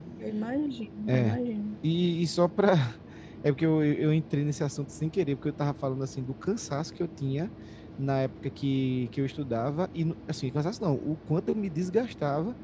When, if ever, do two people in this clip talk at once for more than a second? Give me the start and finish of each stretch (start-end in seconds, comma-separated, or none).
none